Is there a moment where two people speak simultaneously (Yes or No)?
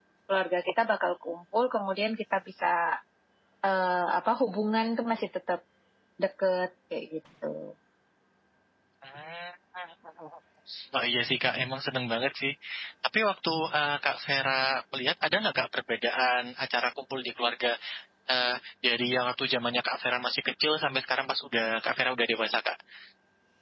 No